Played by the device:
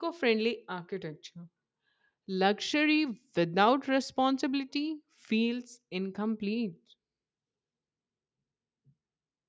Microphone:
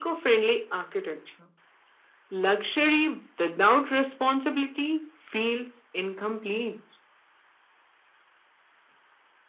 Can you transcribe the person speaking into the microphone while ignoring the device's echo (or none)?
none